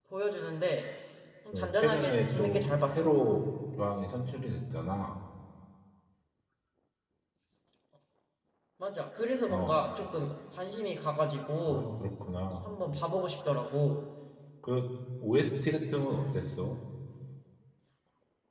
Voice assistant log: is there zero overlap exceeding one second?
No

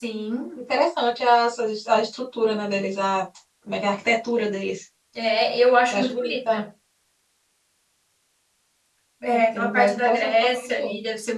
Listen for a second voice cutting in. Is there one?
Yes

